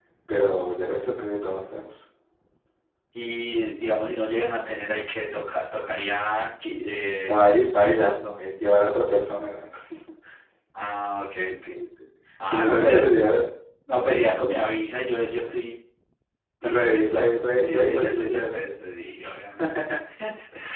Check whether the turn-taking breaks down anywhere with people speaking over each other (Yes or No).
Yes